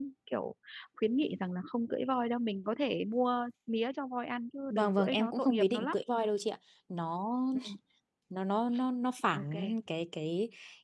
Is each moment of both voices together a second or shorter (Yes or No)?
No